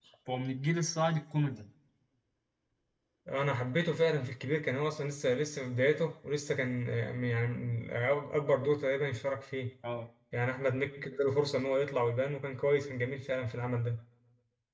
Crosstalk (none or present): none